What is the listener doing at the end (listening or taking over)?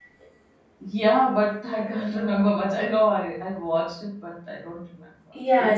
taking over